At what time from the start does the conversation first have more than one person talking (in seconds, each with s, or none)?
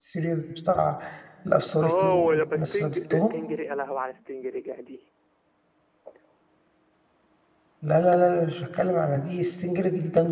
1.8 s